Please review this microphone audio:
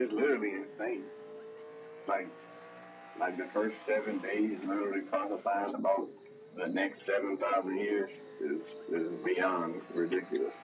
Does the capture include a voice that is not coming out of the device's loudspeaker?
No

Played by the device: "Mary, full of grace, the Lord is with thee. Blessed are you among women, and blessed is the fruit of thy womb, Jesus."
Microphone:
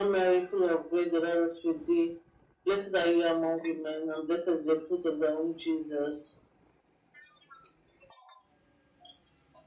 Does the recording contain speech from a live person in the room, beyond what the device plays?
No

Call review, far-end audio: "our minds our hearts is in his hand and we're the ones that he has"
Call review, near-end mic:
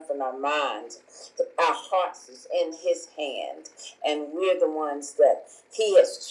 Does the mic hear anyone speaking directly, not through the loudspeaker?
No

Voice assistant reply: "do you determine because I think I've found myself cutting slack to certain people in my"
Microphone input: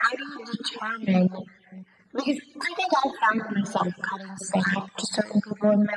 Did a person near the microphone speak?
No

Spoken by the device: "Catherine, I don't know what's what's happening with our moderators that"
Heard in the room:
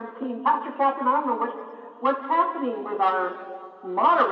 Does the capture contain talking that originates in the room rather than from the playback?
No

